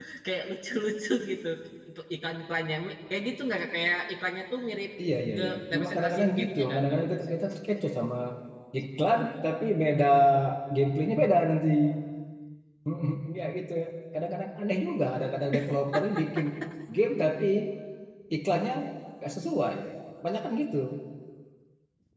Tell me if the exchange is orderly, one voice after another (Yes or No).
No